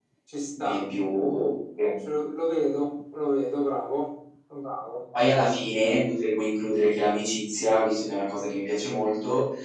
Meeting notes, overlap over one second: none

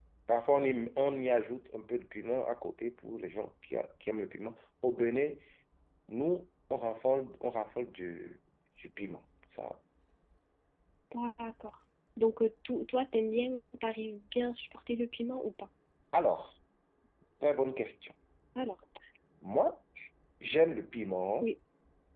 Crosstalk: none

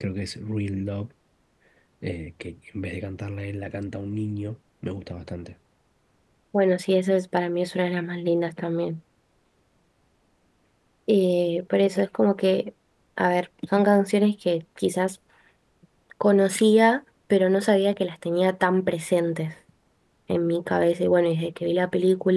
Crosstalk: none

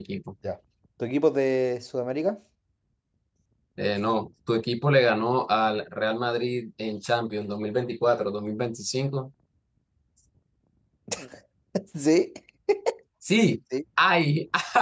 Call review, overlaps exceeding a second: none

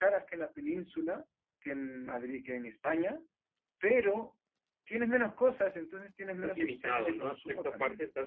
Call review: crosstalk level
present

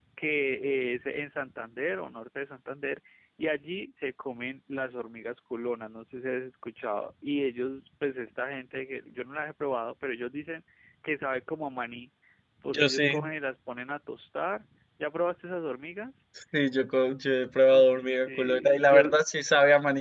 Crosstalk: present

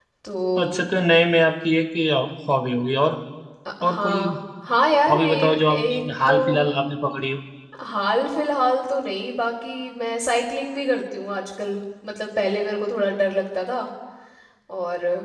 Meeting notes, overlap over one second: present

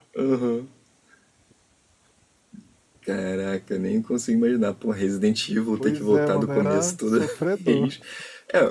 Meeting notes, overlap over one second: present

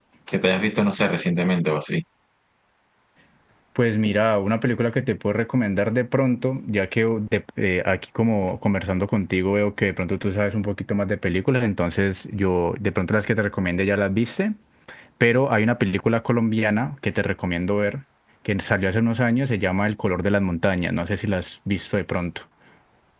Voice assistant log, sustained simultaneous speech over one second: none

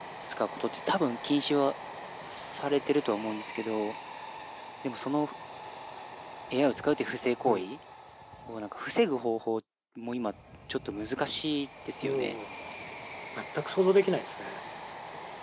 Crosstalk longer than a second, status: none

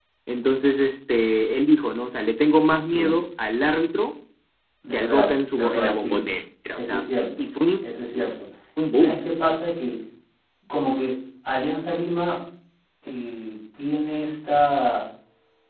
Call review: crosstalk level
present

